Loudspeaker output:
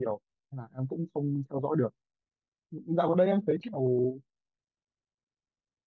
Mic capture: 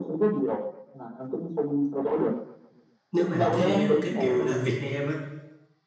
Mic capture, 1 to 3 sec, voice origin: echo only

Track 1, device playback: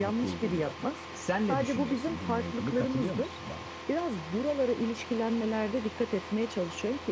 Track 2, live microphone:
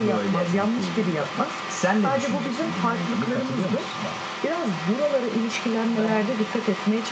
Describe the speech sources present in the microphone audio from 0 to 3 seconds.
echo only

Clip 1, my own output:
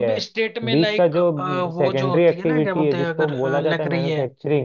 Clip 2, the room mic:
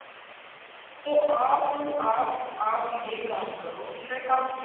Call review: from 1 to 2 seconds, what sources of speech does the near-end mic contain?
user only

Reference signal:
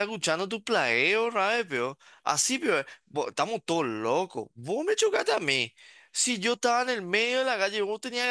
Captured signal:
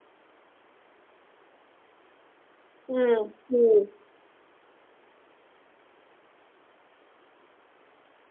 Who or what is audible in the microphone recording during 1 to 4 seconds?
user only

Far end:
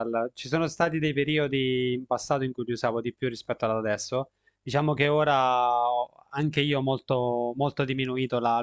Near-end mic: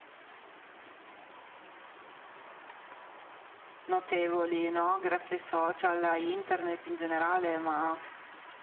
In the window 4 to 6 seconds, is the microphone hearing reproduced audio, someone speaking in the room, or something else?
user only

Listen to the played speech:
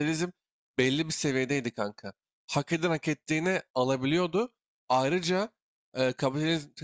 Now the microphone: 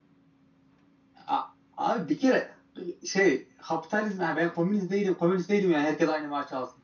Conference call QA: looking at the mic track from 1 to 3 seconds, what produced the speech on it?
user only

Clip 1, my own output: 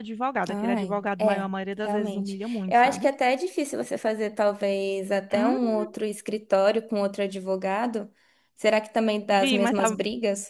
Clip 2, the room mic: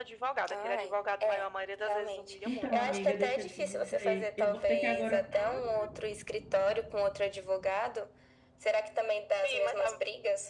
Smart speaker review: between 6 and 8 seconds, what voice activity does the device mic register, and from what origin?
echo only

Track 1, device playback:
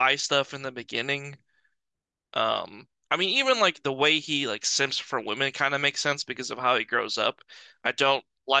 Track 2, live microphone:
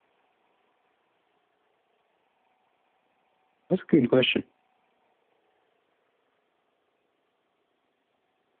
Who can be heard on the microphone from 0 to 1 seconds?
neither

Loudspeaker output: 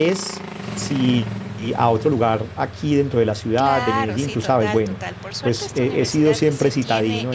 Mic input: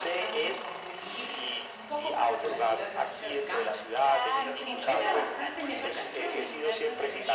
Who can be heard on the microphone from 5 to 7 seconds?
both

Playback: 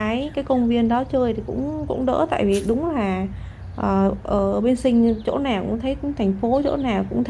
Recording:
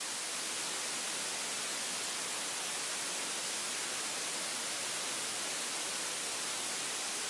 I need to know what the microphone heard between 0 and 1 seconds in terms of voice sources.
neither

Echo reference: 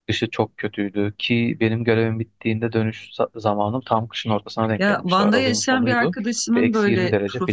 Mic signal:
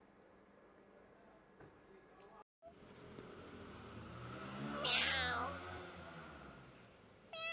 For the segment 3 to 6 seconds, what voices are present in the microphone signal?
neither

